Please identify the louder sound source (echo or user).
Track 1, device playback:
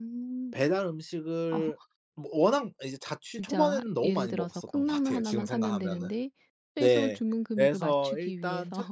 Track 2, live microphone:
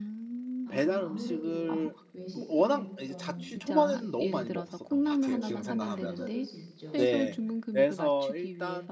echo